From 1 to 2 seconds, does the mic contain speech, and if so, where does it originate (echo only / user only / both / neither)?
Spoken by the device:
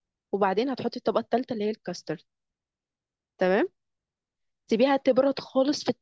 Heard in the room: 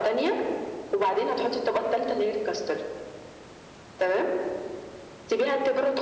echo only